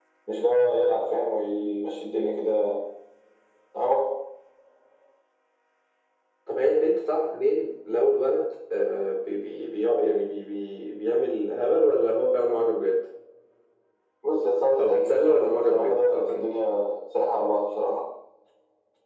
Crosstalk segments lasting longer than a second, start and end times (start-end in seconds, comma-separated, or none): 14.8-16.5